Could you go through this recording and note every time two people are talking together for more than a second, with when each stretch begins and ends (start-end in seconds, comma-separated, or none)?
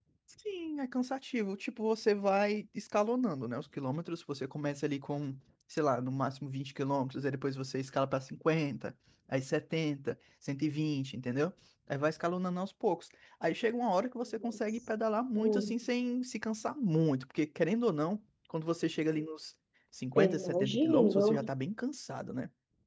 20.2-21.5